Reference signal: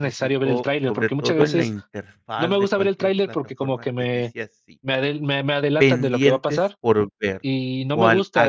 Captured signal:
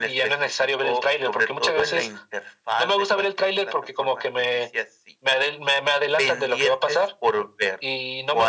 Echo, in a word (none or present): present